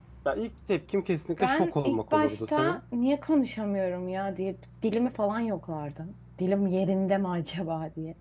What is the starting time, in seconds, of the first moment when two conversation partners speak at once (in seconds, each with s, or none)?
1.4 s